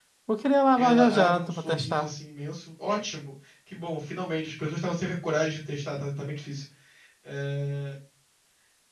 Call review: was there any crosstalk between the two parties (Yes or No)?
Yes